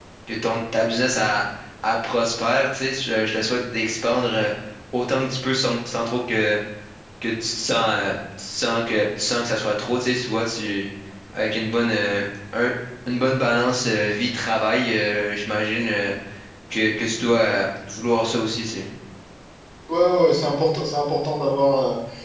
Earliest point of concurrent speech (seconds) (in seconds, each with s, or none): none